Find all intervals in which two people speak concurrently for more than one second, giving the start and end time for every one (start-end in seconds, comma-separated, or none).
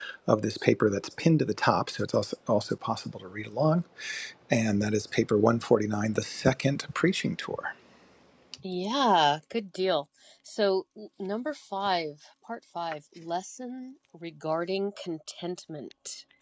none